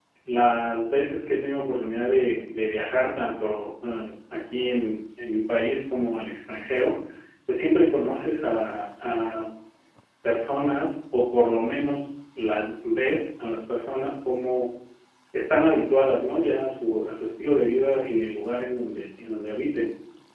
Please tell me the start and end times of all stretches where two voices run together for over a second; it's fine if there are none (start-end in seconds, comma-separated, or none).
none